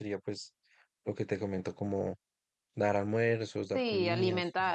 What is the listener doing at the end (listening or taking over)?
taking over